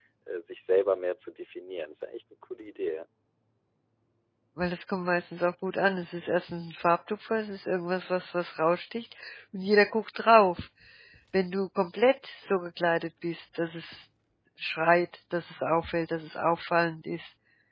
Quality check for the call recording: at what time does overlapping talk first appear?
none

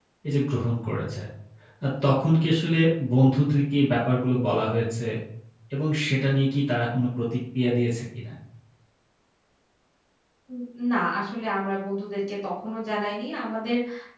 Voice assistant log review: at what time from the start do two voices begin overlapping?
none

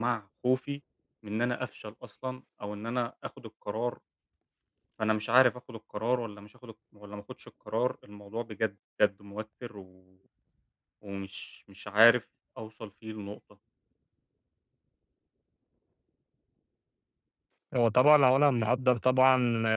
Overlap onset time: none

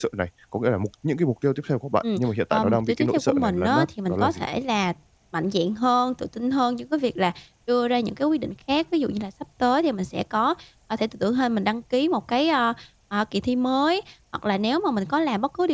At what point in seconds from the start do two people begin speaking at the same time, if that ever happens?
2.0 s

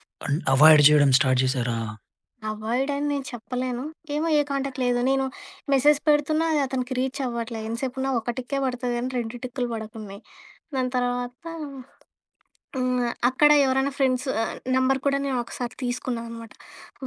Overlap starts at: none

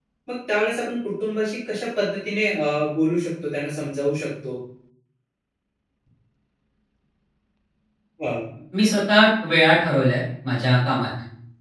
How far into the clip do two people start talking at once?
none

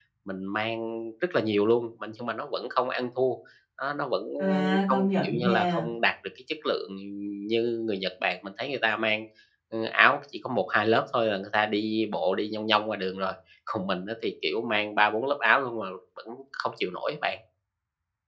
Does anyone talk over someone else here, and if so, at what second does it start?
4.4 s

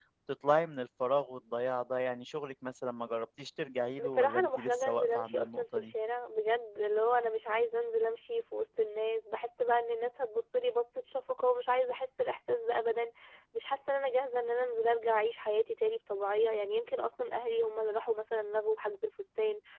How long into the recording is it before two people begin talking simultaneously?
4.0 s

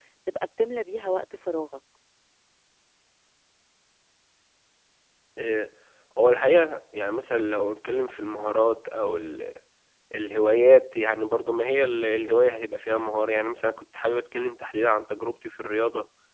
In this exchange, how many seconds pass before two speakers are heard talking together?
none

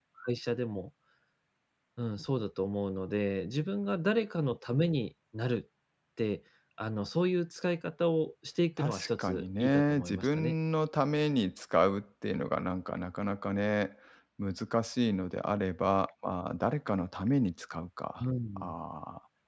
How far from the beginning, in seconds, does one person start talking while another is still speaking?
8.8 s

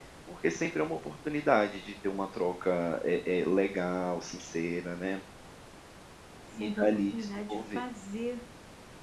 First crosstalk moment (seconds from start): 6.5 s

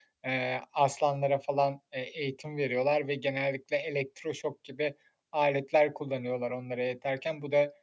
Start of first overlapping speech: none

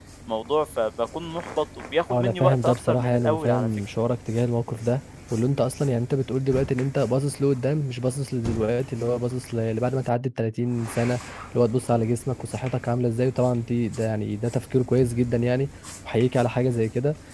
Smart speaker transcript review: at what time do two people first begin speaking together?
2.1 s

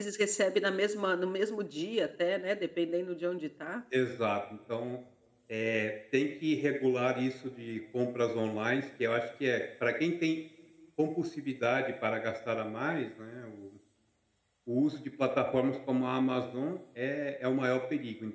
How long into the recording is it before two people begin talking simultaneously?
none

